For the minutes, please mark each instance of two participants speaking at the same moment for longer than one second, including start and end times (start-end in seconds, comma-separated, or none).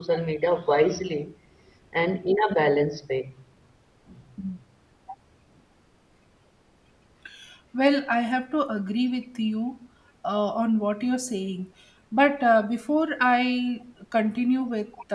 none